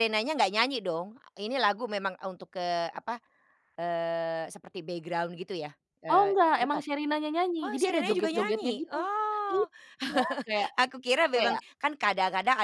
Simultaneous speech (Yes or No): Yes